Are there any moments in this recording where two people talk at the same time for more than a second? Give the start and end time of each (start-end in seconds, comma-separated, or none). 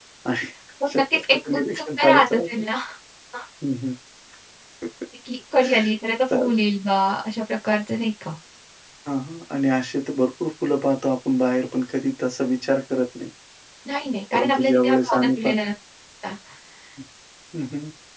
0.9-2.4, 14.3-15.5